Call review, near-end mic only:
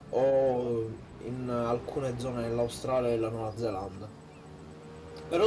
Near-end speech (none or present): none